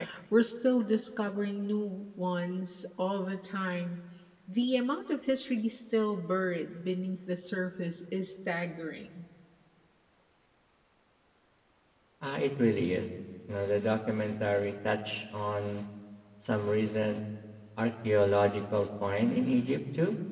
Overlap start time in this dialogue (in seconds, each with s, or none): none